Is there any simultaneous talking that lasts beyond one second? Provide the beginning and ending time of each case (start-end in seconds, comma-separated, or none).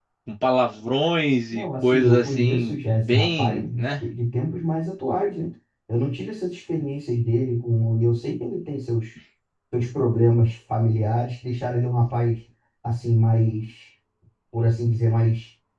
1.5-4.0